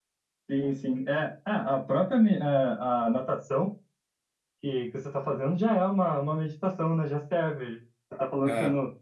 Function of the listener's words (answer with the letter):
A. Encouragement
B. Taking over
A